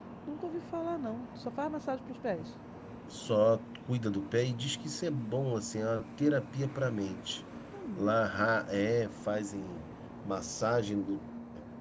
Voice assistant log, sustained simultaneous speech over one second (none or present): none